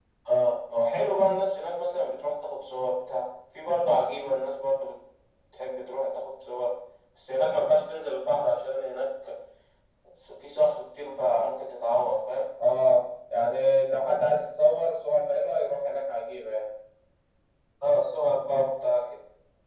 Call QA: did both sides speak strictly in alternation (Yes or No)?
Yes